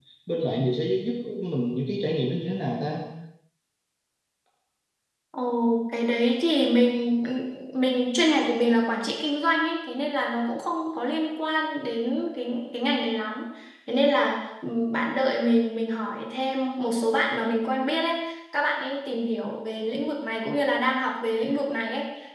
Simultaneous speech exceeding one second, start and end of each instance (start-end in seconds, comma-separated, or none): none